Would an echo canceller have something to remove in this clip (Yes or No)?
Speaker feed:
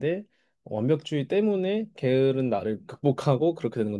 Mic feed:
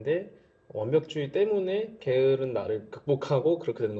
Yes